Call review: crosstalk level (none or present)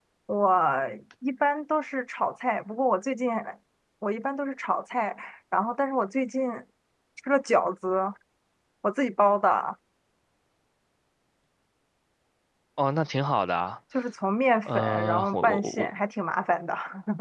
present